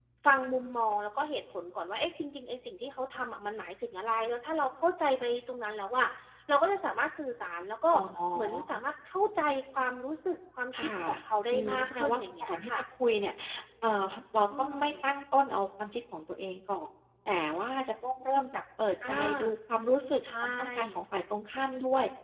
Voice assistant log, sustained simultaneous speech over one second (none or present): present